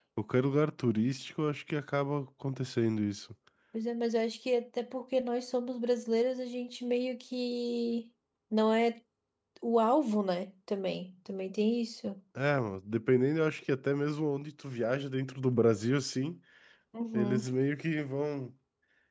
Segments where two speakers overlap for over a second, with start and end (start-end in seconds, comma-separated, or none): none